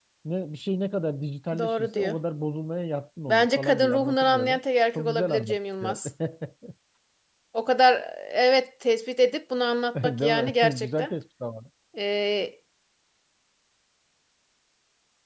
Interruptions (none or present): present